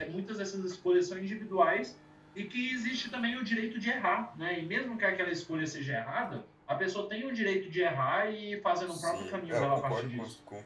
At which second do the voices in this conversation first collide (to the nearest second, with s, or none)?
9 s